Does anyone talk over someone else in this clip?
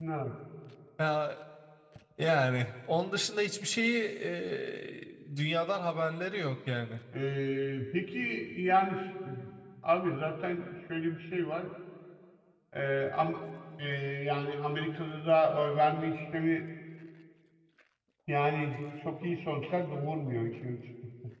No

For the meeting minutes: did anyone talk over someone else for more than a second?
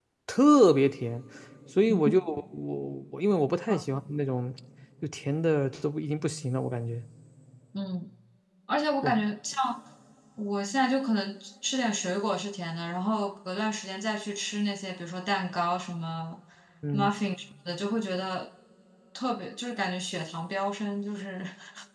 No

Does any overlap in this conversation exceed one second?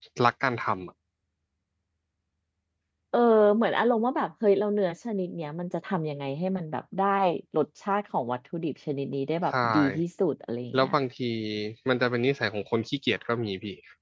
No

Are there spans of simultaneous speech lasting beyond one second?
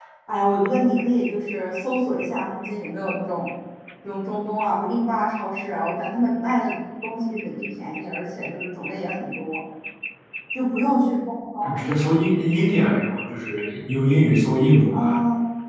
No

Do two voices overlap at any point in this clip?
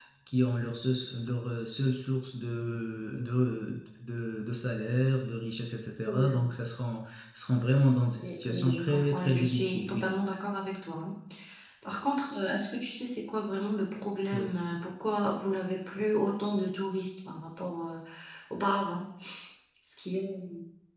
Yes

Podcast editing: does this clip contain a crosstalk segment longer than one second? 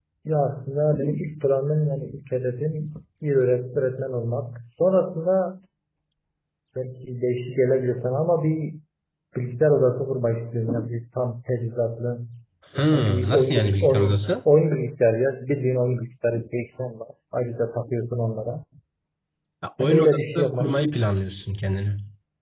Yes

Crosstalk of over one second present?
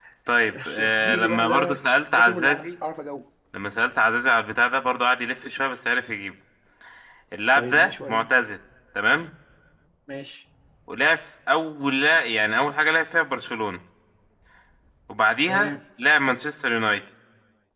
Yes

